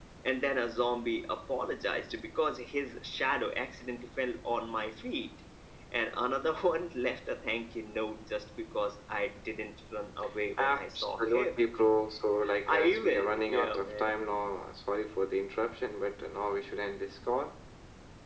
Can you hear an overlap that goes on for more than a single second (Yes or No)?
Yes